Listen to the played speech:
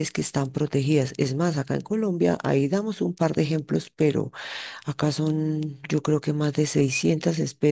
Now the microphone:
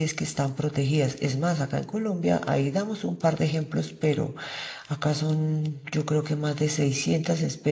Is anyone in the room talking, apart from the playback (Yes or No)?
No